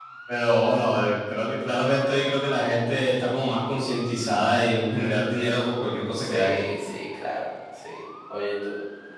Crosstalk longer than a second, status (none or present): none